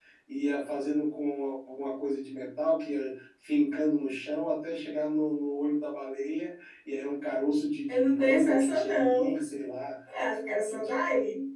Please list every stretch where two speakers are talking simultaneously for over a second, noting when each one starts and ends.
7.9-9.3

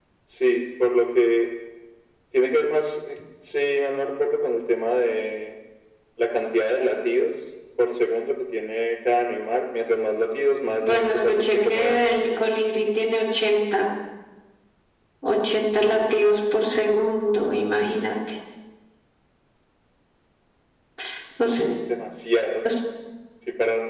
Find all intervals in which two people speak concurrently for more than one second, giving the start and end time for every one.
10.8-12.1

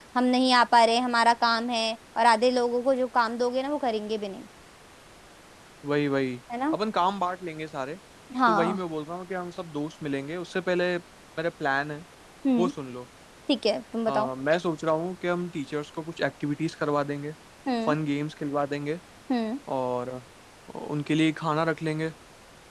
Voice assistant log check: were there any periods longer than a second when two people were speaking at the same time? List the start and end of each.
none

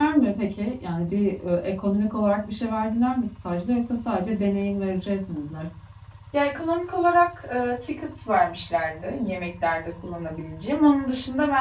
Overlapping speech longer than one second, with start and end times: none

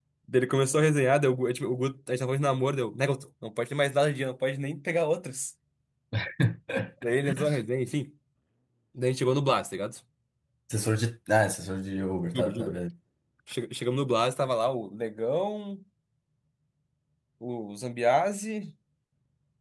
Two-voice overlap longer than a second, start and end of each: none

